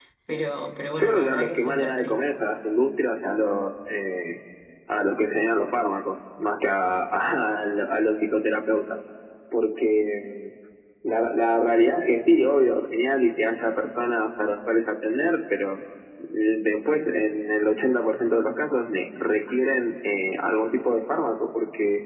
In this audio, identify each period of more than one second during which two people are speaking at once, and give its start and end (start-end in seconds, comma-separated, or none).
0.9-2.3